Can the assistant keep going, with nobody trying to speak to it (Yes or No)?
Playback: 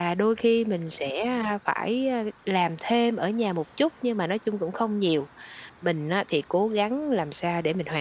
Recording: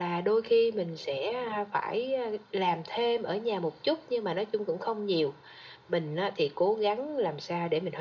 Yes